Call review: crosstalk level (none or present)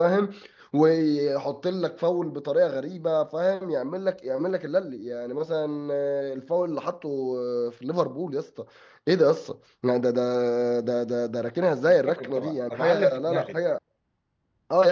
present